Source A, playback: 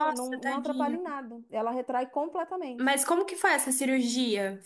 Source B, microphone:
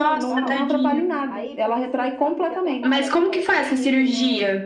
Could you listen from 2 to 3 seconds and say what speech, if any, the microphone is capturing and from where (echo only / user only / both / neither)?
both